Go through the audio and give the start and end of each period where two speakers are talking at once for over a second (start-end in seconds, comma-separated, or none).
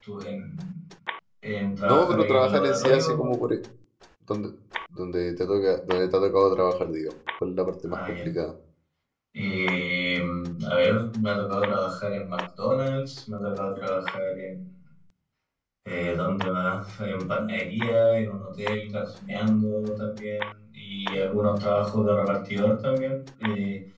1.8-3.3